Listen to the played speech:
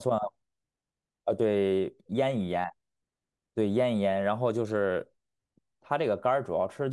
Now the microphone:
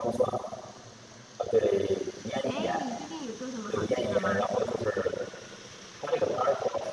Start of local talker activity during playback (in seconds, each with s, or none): 2.4 s